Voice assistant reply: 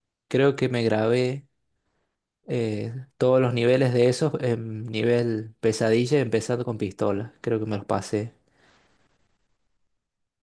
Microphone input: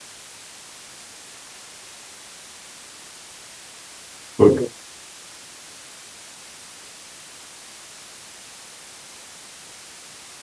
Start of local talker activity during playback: 4.4 s

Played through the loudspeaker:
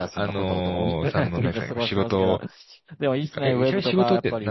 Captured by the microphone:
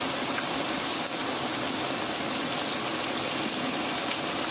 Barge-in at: none

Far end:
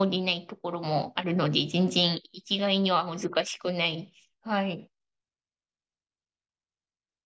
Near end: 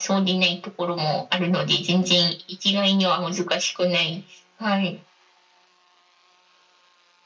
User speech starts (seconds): none

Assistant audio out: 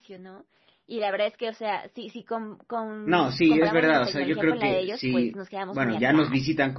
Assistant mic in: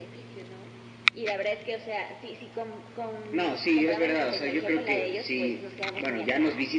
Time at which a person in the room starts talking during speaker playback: none

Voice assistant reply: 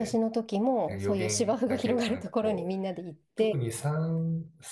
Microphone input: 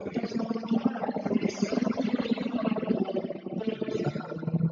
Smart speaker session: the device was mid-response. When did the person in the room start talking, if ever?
none

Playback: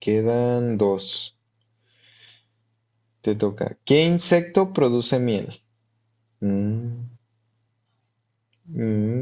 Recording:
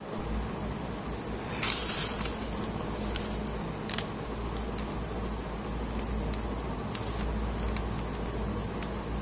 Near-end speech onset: none

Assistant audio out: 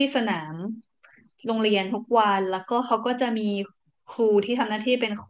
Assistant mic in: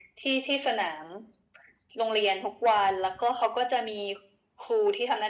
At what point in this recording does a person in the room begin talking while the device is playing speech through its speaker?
none

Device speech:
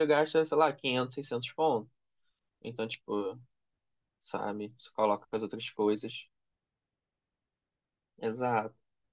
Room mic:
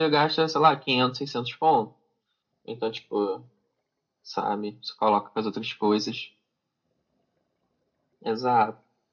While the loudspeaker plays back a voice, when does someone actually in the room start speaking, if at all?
none

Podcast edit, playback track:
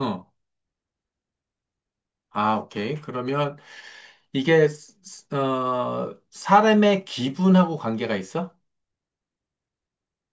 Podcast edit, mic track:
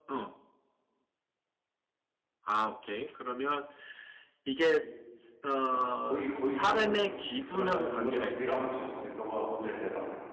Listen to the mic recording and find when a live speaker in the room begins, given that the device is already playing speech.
4.8 s

